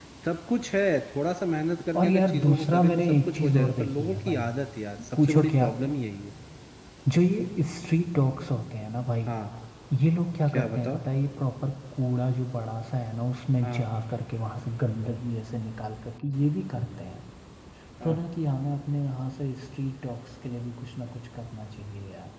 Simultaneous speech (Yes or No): Yes